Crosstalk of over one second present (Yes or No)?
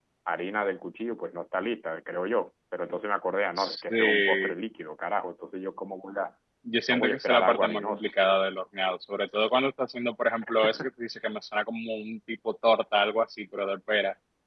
Yes